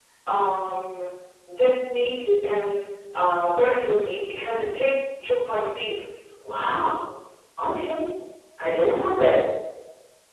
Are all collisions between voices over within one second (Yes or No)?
Yes